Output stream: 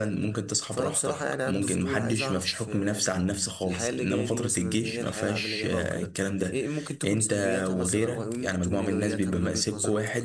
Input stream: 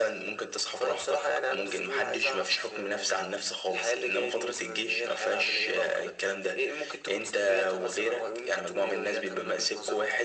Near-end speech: none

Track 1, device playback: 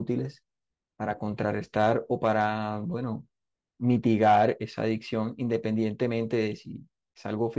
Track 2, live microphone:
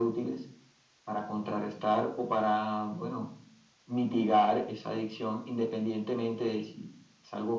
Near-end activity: none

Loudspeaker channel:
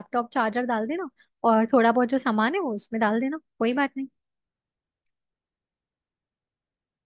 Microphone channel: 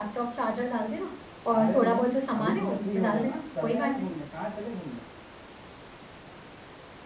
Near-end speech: present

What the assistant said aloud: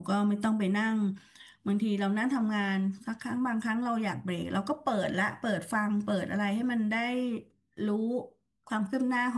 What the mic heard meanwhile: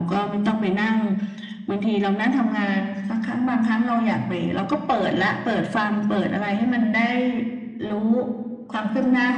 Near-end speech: none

